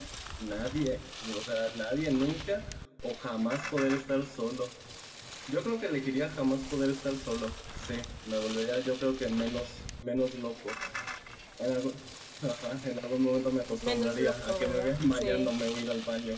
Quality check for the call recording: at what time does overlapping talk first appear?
13.8 s

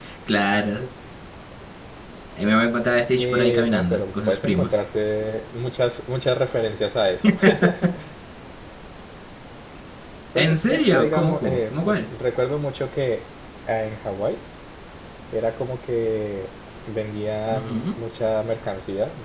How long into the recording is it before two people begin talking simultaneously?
3.2 s

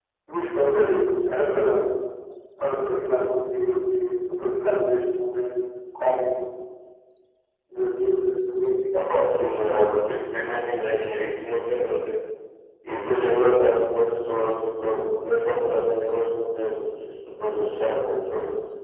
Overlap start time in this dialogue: none

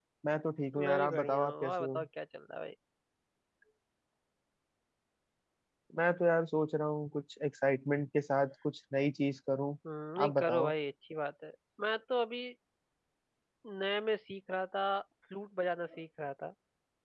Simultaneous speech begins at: 0.7 s

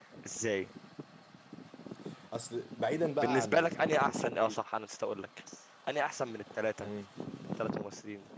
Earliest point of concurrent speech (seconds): 3.2 s

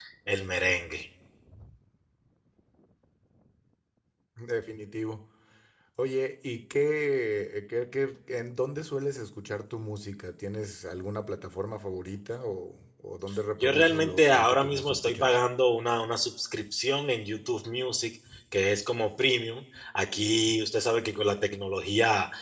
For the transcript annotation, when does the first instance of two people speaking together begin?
13.6 s

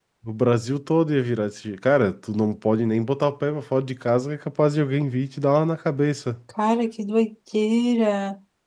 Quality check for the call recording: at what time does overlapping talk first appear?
none

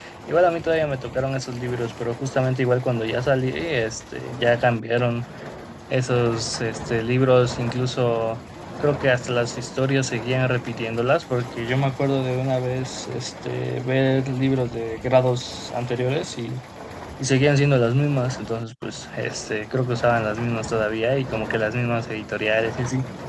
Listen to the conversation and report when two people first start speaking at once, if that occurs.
none

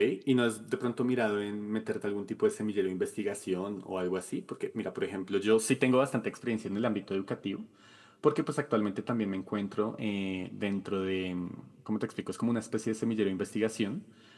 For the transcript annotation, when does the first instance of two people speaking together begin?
none

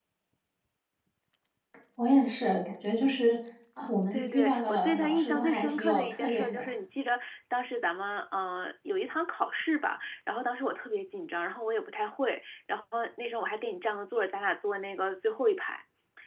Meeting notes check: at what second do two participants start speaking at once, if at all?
4.1 s

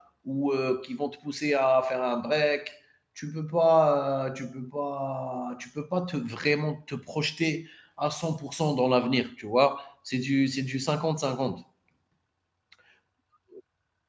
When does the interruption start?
none

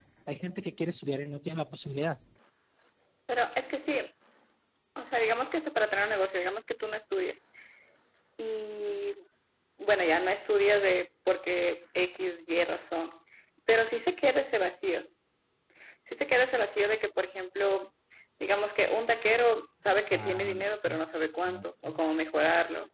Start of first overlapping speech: 19.9 s

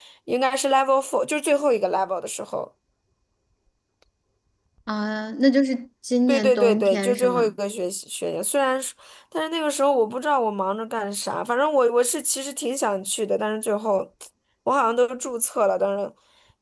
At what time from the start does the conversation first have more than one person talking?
6.3 s

